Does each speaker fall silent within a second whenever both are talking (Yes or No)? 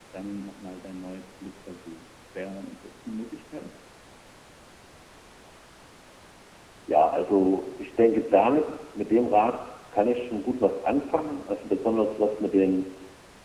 Yes